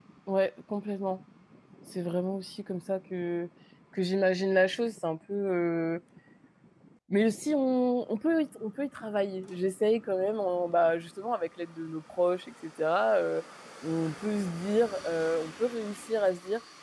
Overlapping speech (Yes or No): No